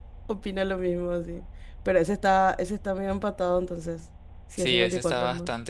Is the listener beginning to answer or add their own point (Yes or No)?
Yes